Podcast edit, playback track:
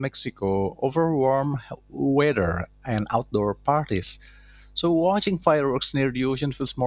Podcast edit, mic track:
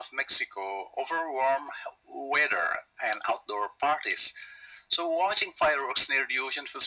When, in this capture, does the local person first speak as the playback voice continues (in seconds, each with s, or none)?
none